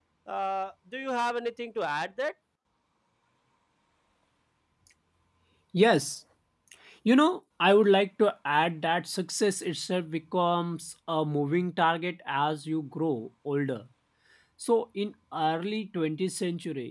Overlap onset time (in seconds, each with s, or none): none